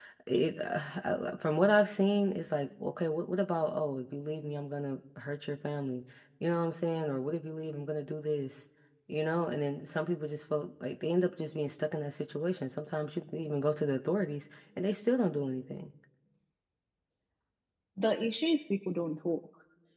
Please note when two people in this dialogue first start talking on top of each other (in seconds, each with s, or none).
none